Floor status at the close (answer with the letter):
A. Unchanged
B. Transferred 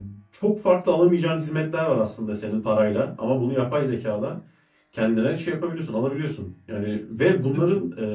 A